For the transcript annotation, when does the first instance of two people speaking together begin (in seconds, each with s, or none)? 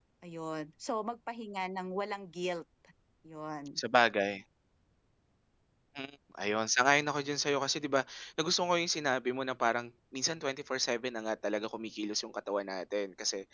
none